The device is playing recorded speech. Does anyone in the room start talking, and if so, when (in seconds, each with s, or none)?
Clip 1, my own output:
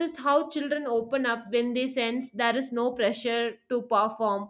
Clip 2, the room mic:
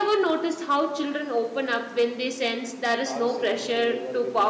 3.0 s